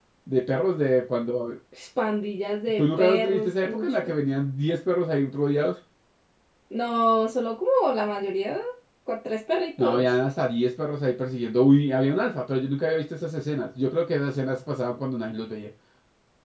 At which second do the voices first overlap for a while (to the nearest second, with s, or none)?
3 s